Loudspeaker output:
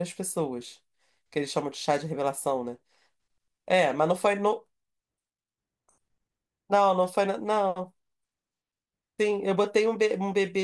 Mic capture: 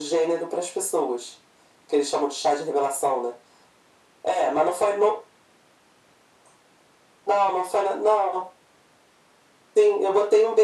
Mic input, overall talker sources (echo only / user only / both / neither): echo only